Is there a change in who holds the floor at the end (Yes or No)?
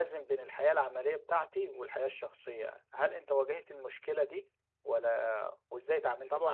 Yes